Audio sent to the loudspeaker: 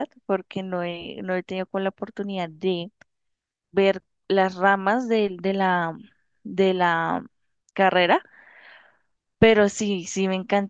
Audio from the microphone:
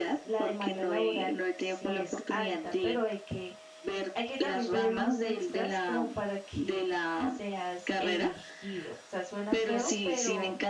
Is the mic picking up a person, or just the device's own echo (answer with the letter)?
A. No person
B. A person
B